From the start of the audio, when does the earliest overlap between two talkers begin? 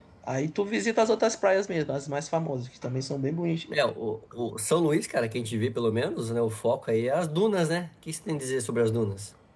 none

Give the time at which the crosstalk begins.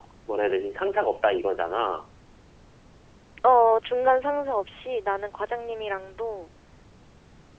none

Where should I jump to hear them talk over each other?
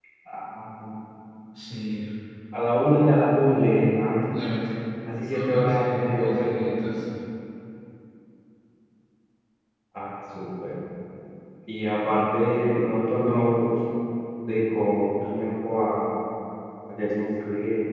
5.3 s

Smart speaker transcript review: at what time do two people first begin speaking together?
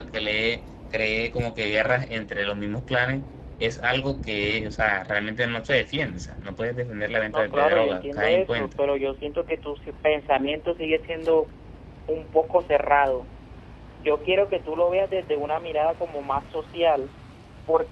7.3 s

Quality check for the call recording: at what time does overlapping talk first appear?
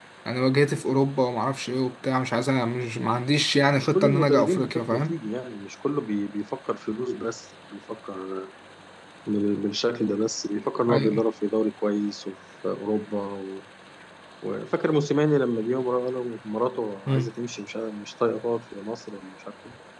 3.8 s

